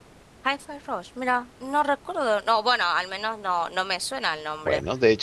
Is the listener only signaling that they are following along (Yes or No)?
No